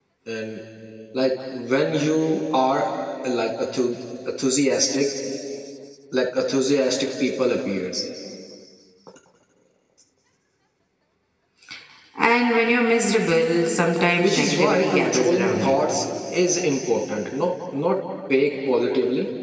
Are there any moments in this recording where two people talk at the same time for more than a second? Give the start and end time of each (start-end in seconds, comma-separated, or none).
14.2-15.9